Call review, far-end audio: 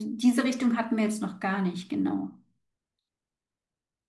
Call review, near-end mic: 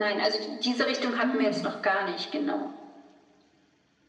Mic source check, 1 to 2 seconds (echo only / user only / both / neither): both